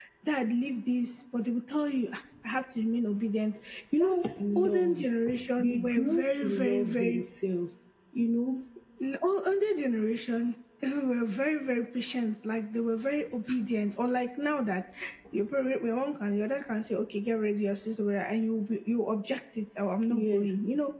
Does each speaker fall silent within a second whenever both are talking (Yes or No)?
No